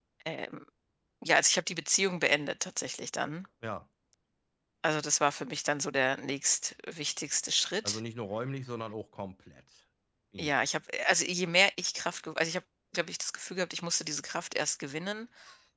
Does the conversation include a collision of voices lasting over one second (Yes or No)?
No